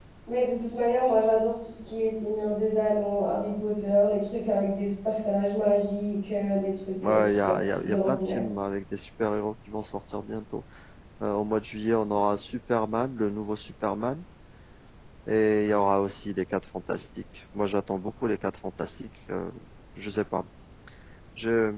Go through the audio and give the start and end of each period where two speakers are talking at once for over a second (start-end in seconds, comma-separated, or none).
7.0-8.4